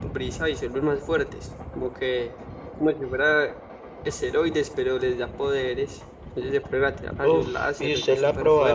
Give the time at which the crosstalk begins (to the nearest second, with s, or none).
7 s